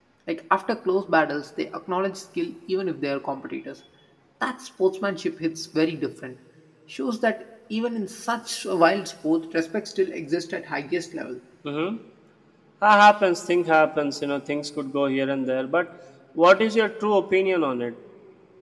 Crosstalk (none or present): none